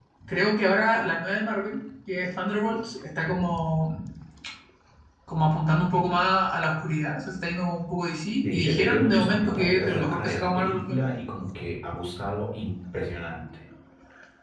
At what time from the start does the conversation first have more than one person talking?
8.4 s

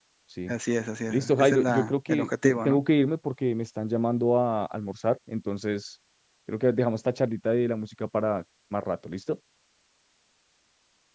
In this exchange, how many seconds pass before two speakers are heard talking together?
1.1 s

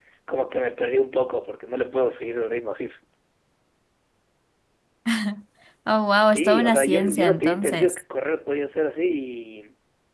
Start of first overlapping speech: 6.3 s

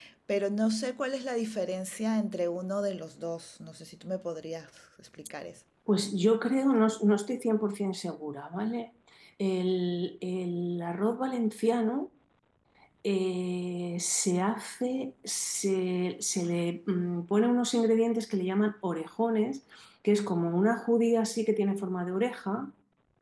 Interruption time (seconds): none

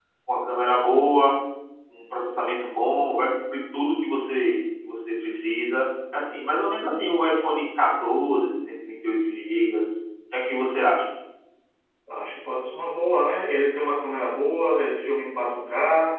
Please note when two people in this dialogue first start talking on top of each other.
none

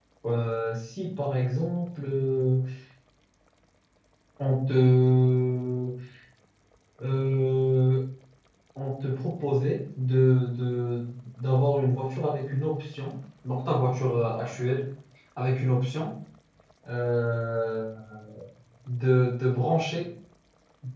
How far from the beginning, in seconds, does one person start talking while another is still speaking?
none

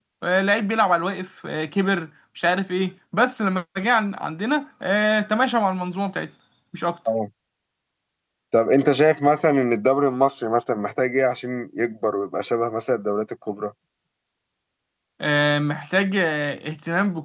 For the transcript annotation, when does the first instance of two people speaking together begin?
none

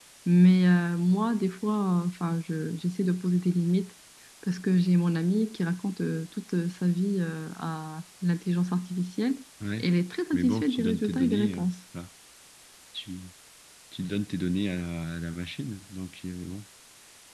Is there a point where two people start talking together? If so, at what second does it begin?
10.3 s

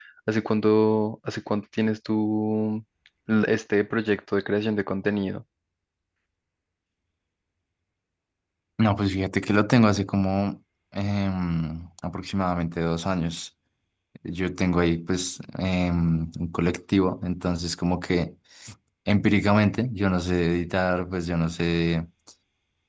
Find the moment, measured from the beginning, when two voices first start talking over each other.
none

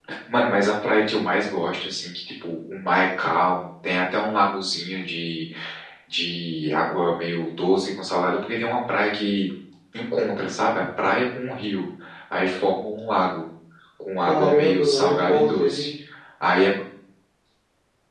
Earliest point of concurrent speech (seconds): 14.2 s

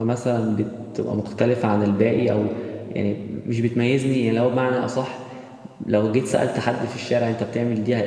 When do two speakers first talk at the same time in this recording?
none

